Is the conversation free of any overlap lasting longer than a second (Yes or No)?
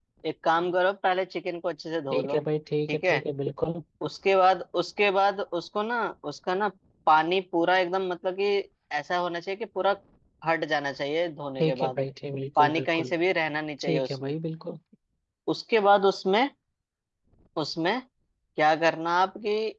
Yes